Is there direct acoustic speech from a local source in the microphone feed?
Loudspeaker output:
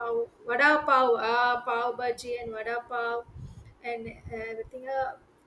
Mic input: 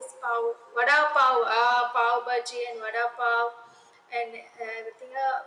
No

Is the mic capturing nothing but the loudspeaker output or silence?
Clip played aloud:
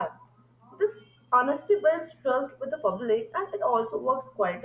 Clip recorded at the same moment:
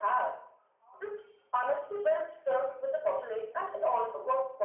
Yes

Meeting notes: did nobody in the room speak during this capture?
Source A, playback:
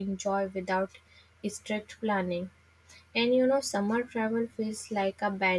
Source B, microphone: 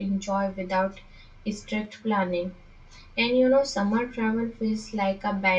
Yes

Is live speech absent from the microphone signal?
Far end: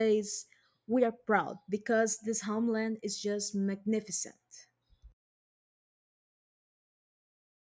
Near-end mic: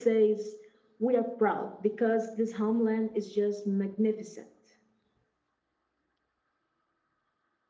Yes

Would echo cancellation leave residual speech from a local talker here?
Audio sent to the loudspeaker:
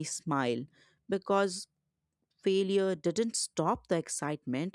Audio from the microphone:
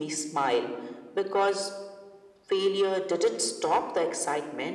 No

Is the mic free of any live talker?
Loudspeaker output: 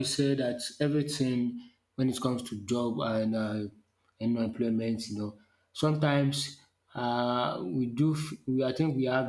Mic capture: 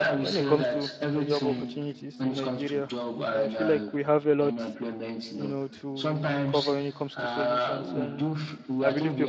No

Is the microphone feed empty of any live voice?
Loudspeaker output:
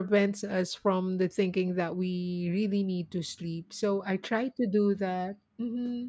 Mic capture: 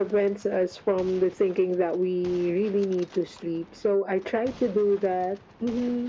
Yes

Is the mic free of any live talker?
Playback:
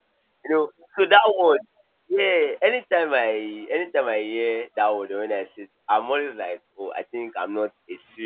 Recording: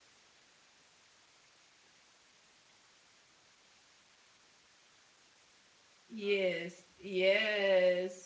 No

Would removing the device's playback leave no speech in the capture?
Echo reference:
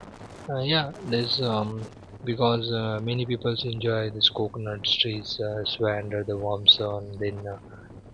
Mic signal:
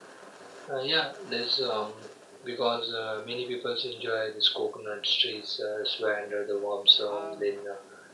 No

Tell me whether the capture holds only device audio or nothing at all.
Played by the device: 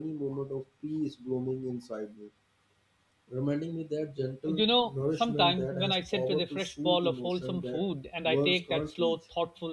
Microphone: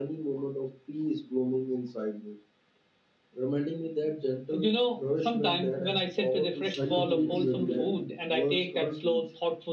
No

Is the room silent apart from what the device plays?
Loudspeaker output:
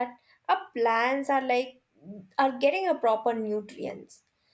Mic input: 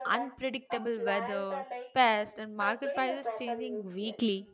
No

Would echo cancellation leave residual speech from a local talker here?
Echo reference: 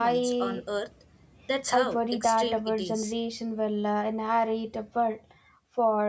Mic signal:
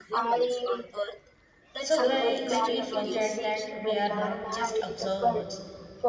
Yes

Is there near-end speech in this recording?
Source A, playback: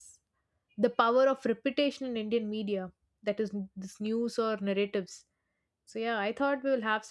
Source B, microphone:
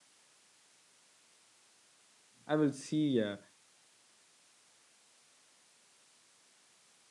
Yes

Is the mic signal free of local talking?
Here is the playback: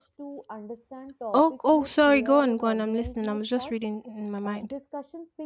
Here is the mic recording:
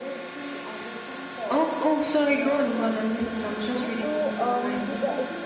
No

